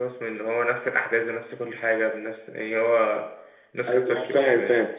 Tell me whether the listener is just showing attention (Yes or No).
No